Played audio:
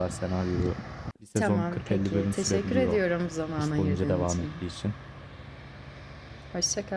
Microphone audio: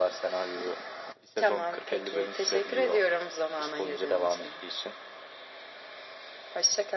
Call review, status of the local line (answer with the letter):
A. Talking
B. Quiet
B